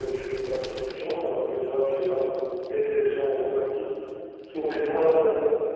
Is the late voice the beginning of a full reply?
Yes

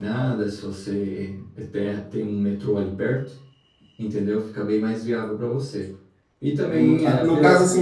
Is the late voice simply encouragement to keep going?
No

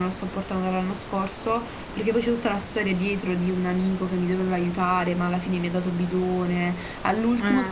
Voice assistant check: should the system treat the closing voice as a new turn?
No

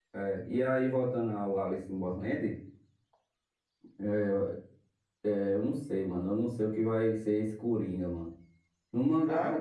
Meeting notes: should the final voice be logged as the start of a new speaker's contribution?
No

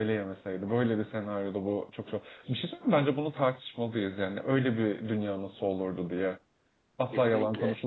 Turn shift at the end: No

